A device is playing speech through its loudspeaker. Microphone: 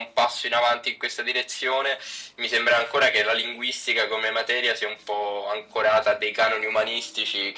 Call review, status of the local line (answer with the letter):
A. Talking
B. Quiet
B